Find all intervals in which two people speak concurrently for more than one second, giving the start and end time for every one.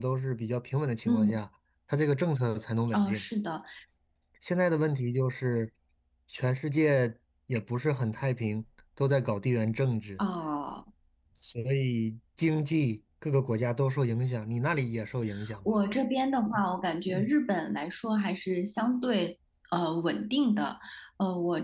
none

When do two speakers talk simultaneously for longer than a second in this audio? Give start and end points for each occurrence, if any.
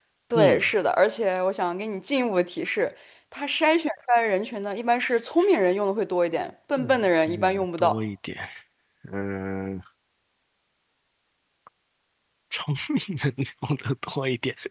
6.8-8.0

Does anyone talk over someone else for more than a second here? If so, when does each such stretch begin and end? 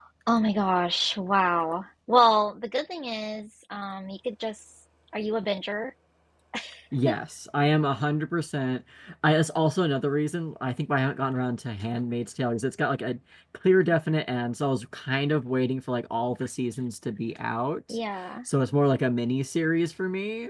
none

